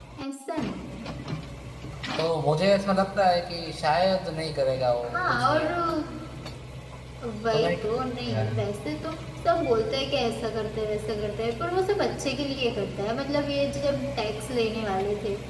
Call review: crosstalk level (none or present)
present